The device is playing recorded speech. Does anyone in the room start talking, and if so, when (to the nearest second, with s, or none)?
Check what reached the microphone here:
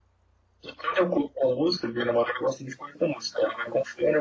none